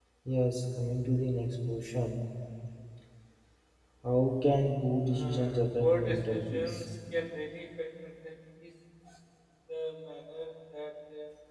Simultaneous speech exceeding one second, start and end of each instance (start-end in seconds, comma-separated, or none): 5.1-6.8